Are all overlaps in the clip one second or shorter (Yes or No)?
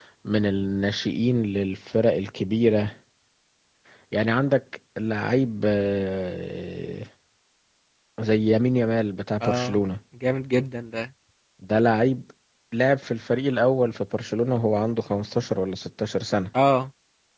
Yes